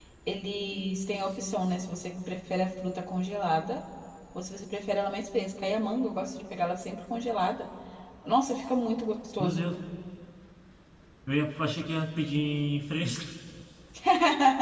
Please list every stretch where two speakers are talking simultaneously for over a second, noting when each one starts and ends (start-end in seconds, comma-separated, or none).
none